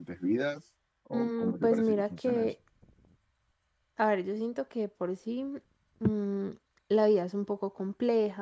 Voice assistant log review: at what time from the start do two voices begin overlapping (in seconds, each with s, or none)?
1.1 s